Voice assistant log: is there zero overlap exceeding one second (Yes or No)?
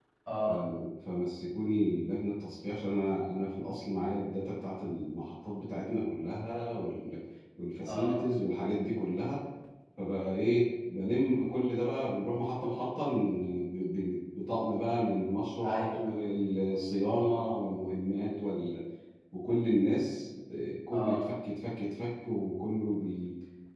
Yes